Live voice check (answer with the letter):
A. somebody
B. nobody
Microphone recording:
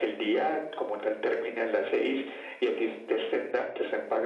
B